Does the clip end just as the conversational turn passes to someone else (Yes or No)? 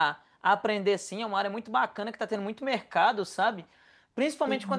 No